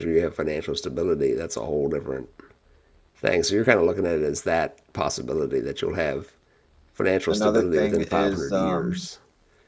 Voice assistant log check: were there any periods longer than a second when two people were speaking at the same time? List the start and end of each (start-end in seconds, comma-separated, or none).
7.3-9.1